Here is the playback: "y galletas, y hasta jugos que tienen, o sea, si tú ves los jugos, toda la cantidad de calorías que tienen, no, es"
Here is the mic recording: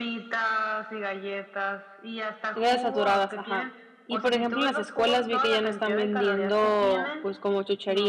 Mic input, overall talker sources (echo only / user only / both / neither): both